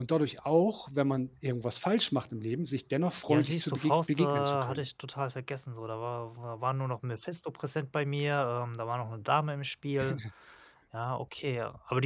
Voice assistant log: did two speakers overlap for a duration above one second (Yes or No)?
Yes